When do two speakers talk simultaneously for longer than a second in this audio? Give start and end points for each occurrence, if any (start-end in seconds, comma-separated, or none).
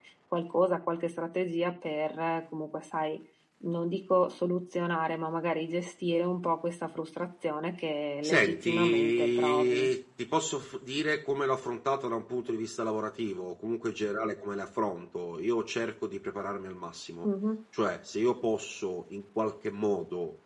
8.2-9.9